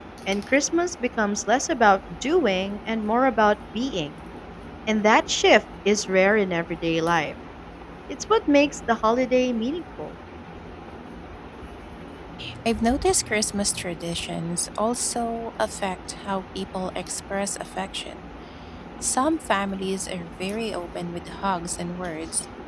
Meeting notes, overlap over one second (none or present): none